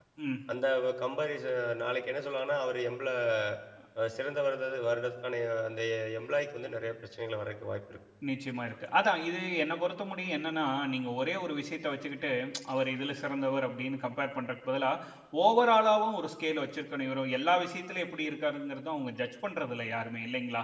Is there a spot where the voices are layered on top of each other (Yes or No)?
No